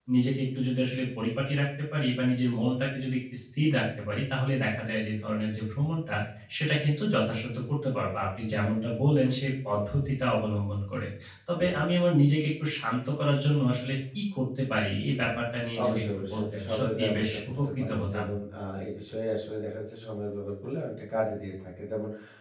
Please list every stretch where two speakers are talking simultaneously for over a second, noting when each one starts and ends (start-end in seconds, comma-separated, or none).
15.8-18.2